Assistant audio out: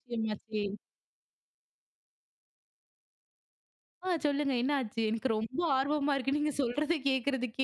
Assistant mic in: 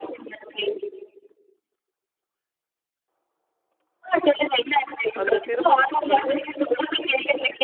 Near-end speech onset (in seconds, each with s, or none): 5.2 s